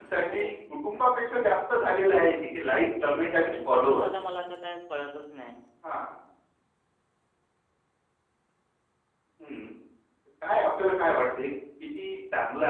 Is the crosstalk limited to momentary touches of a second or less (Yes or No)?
No